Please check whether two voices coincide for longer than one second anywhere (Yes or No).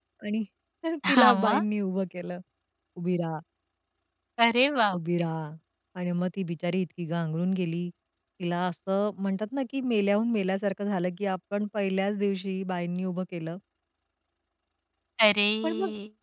No